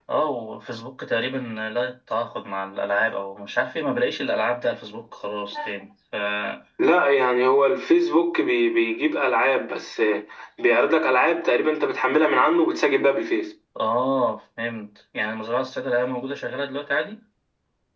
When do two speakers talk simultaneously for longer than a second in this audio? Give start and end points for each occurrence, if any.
none

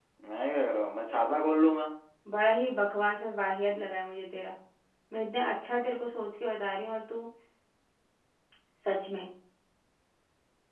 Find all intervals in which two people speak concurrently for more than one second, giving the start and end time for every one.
none

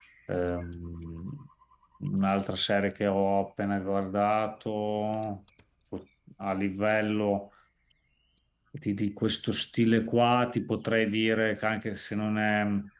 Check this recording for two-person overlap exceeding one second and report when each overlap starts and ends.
none

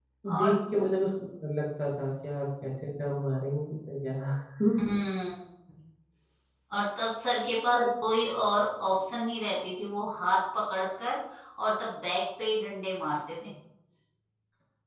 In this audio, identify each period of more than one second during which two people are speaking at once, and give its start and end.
none

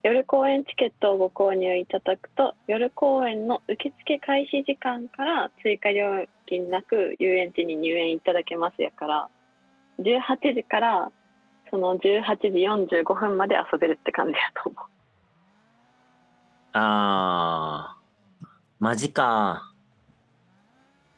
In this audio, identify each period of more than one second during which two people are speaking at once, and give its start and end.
none

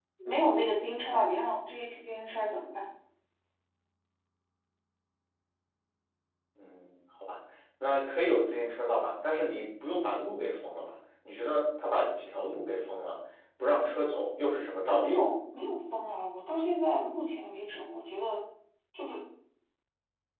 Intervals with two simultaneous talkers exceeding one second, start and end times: none

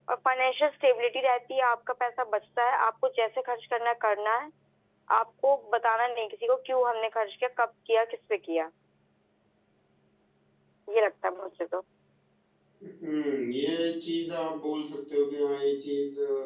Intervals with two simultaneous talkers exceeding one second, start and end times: none

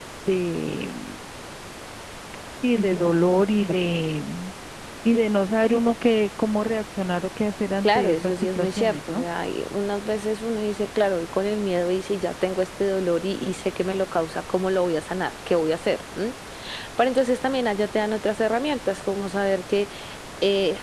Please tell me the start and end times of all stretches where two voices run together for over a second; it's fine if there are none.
7.8-9.2

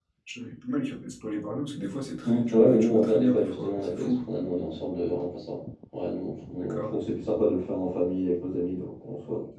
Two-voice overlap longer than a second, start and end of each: 2.2-4.2

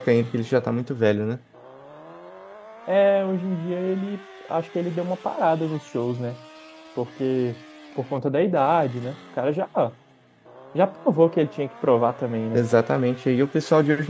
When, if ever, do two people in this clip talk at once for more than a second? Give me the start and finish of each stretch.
none

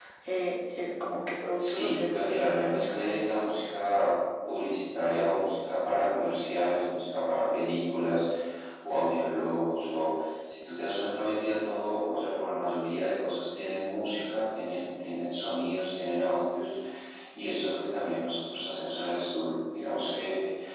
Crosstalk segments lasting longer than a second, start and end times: 1.6-3.6

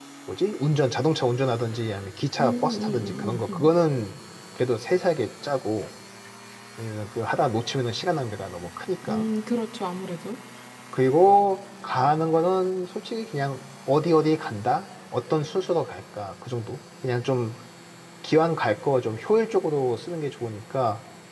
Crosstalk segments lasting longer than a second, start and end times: 2.4-3.7

